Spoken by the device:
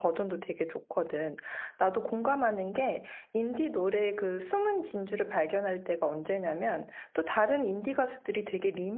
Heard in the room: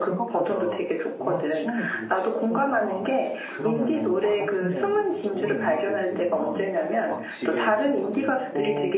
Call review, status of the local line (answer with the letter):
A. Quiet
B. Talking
B